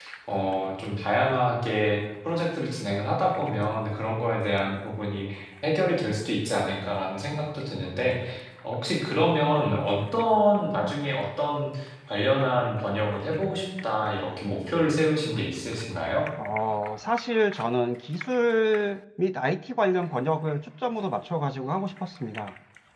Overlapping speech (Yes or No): No